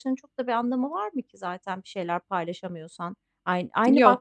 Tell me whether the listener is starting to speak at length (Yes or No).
No